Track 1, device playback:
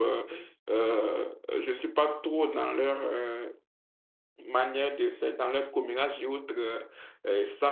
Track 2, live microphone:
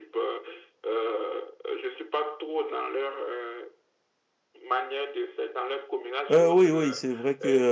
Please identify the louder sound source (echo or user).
user